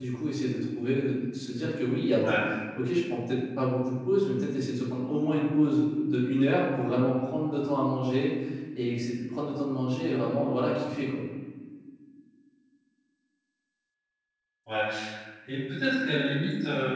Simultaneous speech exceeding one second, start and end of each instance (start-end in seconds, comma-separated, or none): none